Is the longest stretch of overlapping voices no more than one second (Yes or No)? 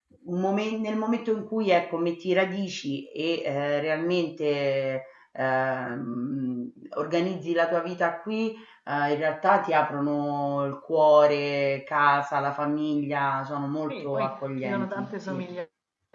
No